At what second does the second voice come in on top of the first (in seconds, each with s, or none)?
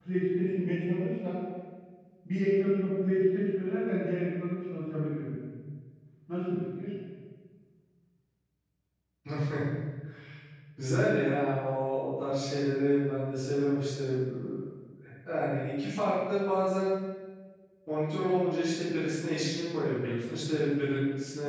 none